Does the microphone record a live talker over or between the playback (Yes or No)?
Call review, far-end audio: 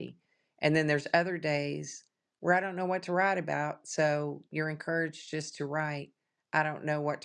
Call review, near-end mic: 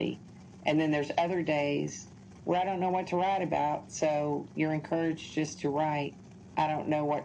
No